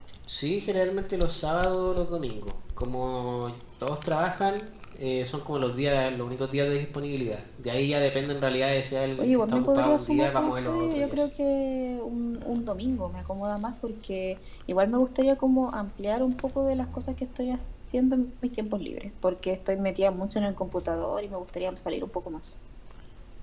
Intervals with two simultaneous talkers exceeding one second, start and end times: 9.2-11.3

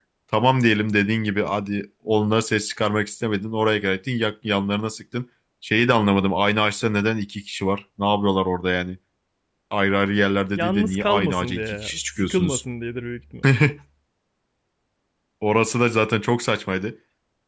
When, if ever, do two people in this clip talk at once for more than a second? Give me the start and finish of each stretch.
10.6-12.6

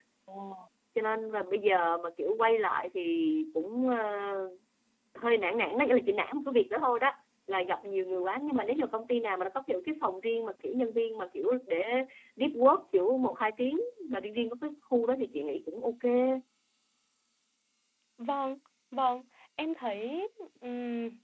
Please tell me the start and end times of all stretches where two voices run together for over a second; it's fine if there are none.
none

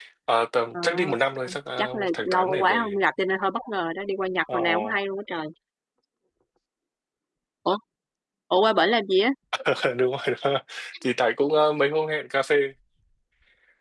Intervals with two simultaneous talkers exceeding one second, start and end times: 1.8-3.0

